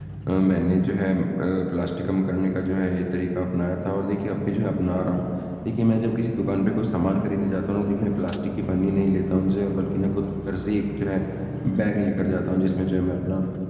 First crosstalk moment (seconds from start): none

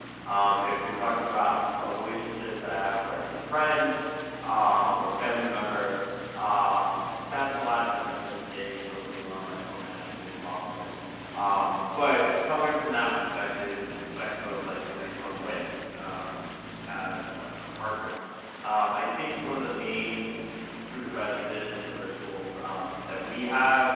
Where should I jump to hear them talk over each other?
none

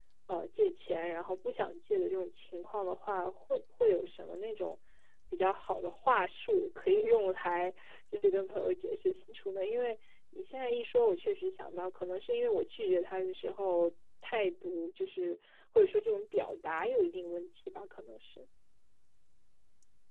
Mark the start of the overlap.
none

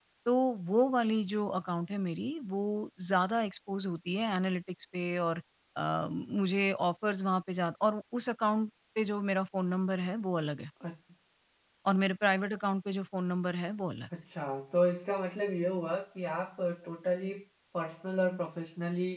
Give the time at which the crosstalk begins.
none

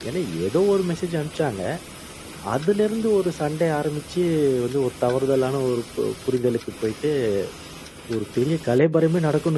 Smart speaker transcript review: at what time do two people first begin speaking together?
none

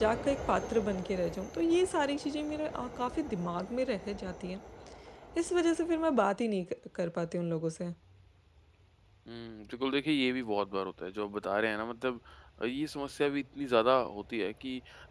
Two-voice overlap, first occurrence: none

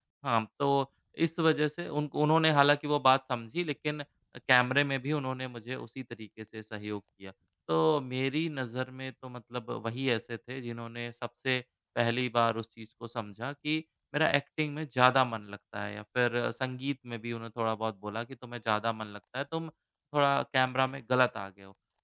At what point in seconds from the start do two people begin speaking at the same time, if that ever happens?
none

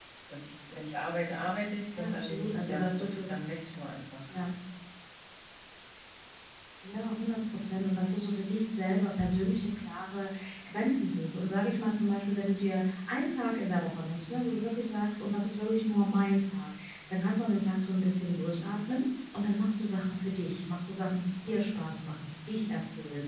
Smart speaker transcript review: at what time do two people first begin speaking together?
1.9 s

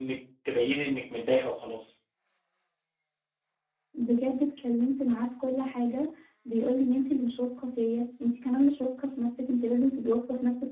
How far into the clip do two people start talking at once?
none

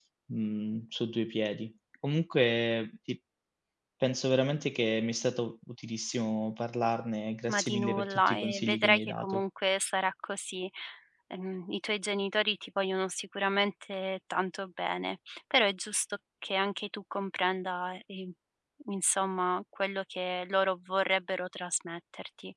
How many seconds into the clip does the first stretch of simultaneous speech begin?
7.5 s

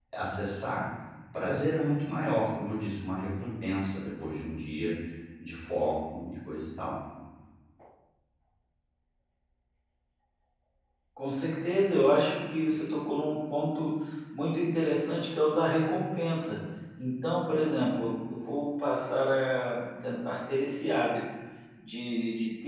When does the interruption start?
none

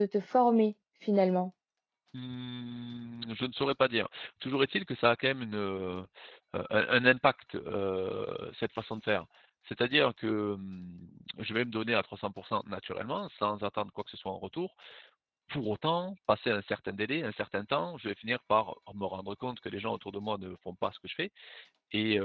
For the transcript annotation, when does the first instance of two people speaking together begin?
none

